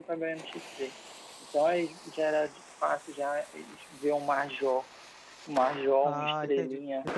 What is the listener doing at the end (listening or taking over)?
taking over